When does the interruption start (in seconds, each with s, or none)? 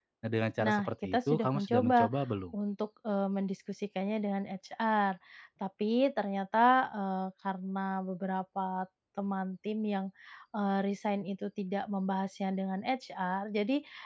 0.6 s